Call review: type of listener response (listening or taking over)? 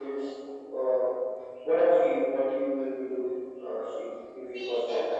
taking over